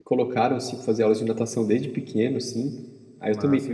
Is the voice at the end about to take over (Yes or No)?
No